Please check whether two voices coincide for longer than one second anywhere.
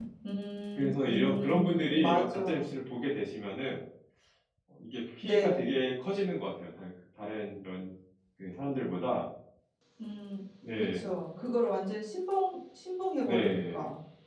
Yes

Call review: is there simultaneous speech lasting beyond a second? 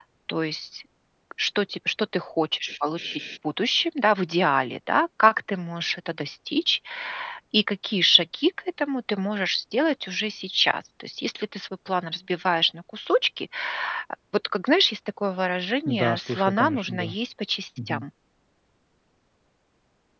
Yes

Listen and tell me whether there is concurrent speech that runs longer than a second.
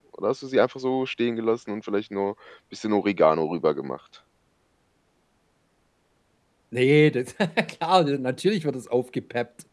No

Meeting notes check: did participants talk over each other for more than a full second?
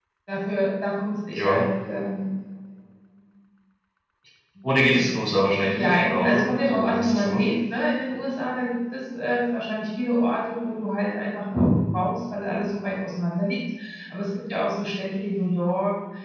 Yes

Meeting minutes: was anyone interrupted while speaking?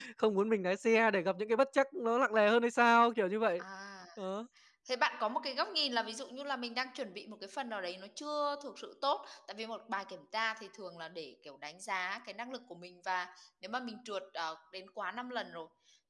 No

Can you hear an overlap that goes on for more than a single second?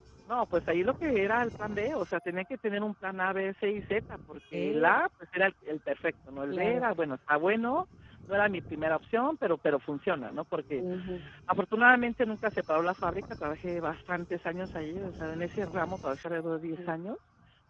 No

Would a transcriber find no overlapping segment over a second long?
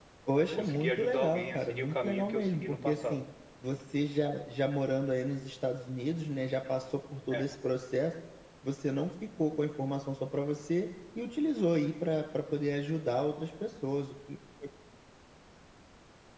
No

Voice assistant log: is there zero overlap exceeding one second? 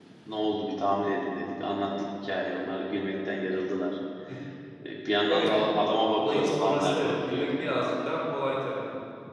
No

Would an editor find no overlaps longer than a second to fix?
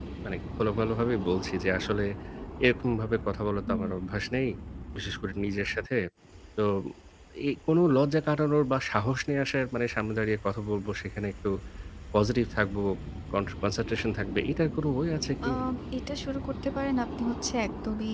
Yes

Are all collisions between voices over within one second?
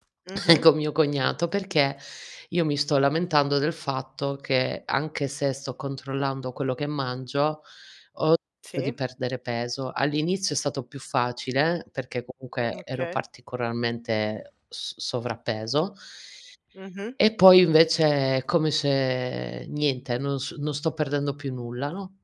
Yes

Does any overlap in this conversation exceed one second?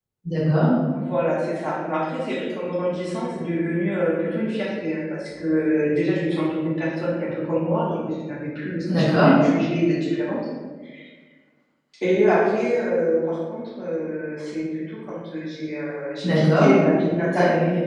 No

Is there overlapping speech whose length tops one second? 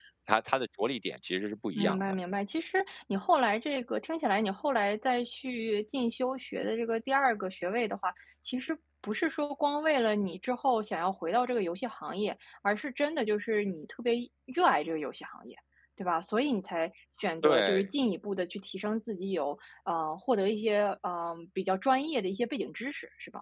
No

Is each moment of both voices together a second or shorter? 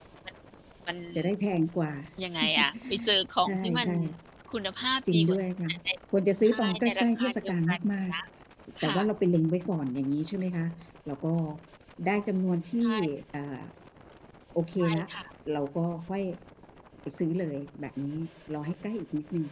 No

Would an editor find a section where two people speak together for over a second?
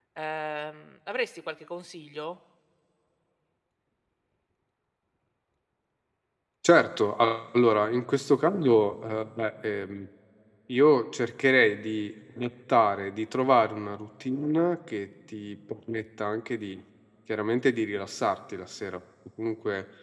No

